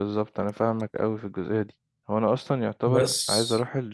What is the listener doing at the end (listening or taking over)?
listening